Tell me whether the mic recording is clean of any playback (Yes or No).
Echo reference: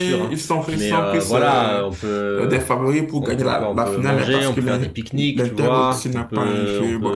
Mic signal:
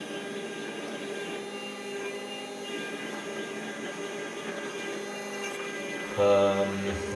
Yes